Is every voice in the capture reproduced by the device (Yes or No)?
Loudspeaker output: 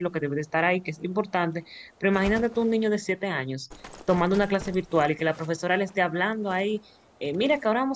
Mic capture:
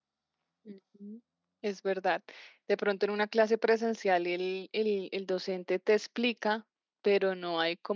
No